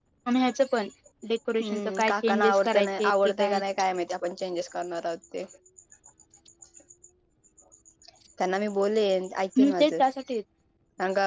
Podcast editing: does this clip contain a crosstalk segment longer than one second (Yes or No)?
Yes